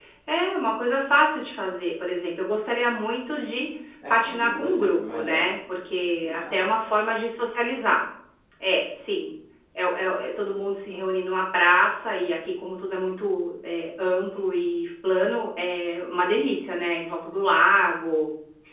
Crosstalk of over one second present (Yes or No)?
Yes